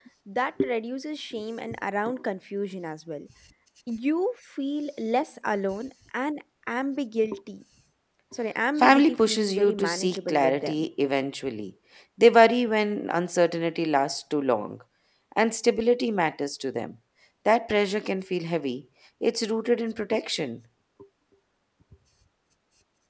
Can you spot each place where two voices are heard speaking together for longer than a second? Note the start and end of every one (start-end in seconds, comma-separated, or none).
8.8-10.8